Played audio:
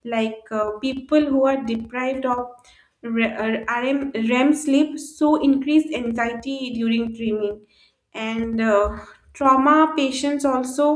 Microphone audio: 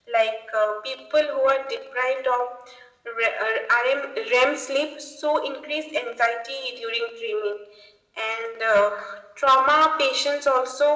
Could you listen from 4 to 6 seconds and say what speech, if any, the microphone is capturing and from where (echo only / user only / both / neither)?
echo only